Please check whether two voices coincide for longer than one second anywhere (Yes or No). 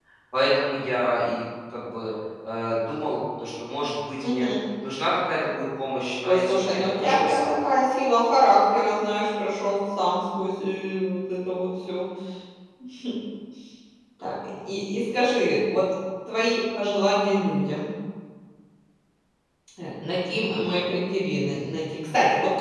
Yes